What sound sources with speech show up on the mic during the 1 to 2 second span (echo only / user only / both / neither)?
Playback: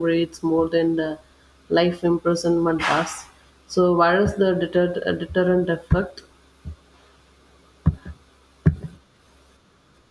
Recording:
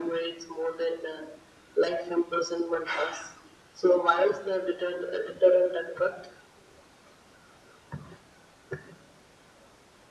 echo only